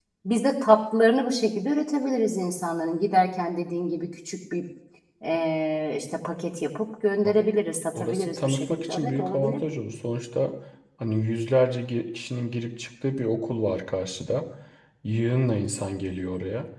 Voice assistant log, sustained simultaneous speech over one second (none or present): present